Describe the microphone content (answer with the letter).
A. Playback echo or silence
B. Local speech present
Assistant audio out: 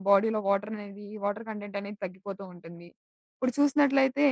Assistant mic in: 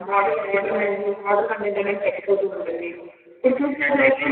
A